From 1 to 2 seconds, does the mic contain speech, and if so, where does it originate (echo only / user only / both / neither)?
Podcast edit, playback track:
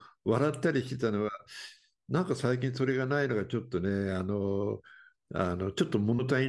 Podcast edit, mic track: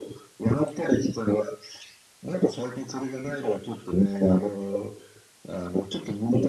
echo only